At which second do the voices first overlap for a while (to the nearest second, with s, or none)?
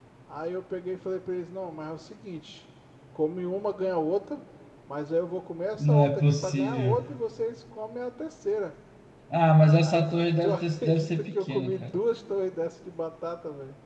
6 s